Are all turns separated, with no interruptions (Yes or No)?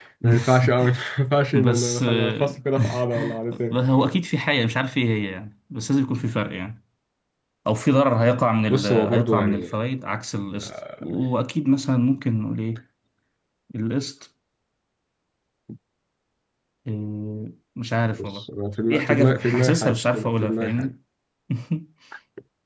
No